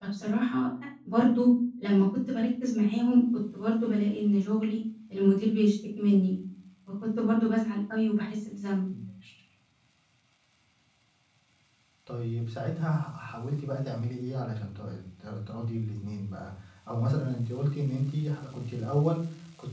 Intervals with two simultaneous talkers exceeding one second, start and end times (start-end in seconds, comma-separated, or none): none